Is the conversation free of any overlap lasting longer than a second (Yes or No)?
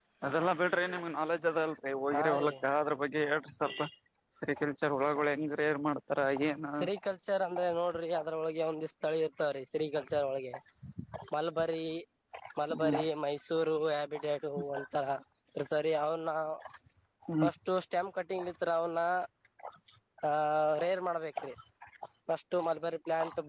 Yes